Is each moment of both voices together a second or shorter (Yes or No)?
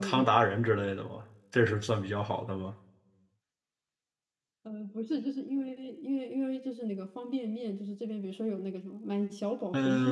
Yes